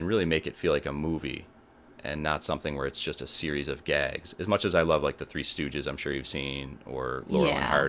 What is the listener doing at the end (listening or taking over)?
listening